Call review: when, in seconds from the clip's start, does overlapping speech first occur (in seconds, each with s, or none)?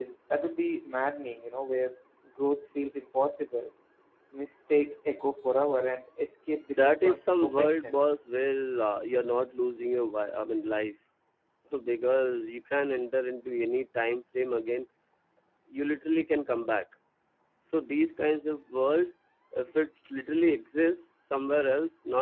6.7 s